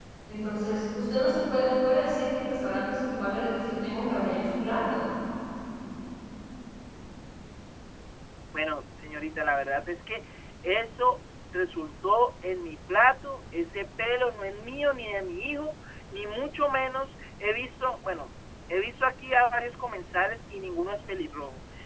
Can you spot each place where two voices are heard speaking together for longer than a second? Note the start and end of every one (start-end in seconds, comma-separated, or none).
none